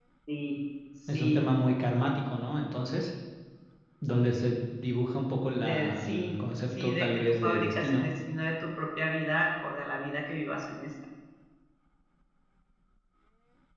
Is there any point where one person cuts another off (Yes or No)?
Yes